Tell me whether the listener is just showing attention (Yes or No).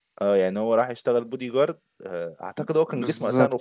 No